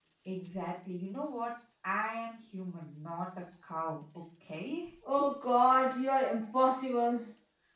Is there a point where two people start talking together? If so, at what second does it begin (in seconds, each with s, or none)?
none